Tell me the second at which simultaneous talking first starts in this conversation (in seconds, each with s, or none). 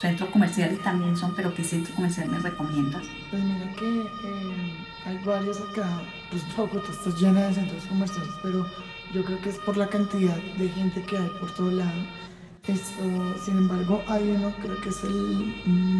none